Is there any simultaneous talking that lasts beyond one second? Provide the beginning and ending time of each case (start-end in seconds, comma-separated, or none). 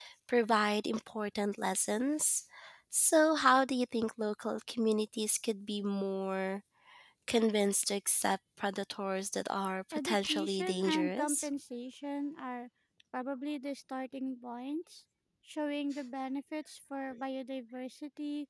9.9-11.5